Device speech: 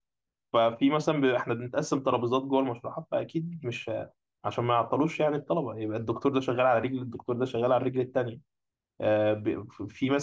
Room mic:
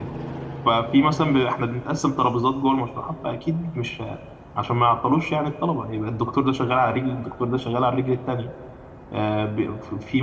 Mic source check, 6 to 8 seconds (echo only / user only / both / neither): echo only